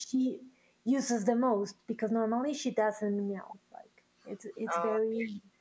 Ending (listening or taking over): listening